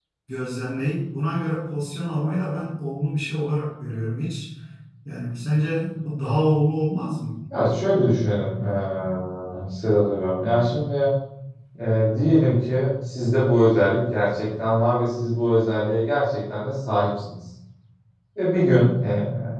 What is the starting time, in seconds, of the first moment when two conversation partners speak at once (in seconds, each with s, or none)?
none